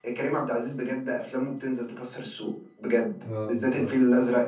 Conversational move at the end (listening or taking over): listening